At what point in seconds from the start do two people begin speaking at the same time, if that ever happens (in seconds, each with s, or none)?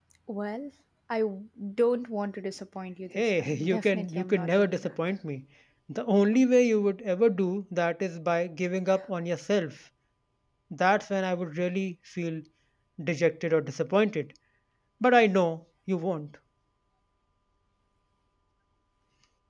3.1 s